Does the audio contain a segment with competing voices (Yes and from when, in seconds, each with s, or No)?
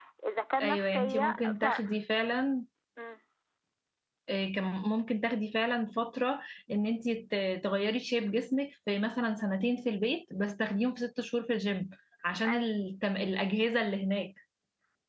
Yes, from 0.6 s